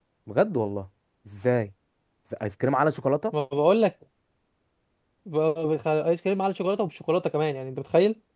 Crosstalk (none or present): none